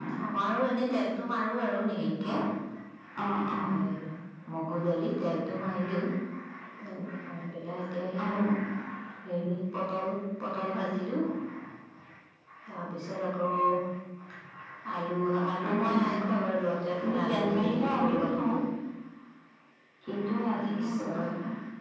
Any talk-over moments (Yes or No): Yes